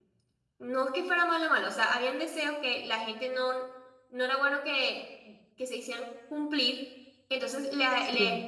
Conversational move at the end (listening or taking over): listening